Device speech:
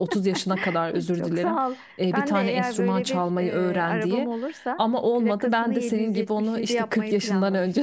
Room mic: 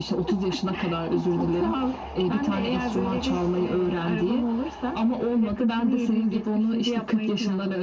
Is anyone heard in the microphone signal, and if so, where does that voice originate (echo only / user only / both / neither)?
echo only